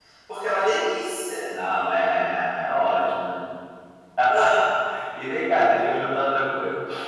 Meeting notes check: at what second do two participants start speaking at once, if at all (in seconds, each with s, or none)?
none